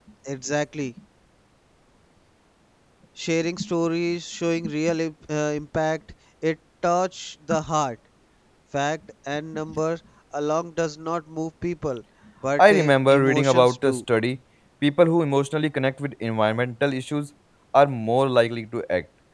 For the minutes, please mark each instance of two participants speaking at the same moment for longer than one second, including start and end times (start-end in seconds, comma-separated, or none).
12.6-14.0